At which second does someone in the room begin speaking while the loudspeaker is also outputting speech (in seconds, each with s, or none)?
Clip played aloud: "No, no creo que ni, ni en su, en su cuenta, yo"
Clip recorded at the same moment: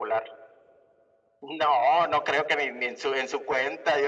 none